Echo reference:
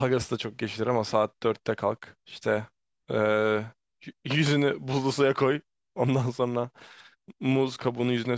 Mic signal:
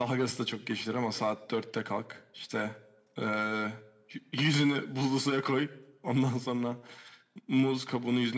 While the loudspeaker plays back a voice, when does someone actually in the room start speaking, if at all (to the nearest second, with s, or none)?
none